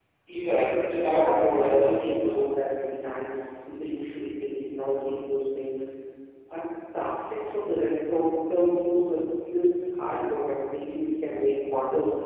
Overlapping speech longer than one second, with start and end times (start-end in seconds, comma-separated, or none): 1.1-2.4